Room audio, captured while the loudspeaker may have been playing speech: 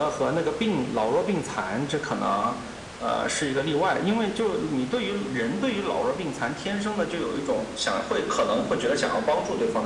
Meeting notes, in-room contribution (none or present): none